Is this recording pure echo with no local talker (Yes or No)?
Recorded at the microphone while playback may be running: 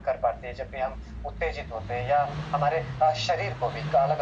Yes